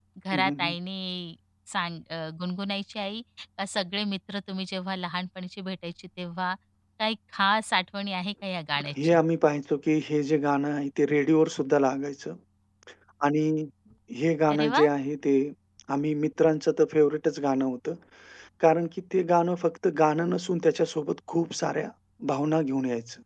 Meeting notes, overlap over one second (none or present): none